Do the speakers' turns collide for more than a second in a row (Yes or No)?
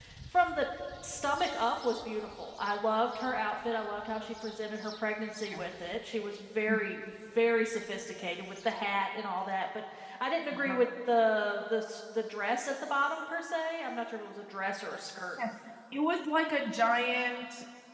No